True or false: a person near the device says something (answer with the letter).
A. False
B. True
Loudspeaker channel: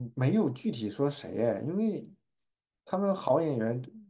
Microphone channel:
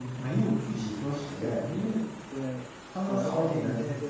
B